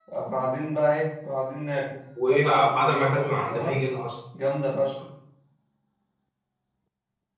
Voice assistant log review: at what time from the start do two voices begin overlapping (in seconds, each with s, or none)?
2.2 s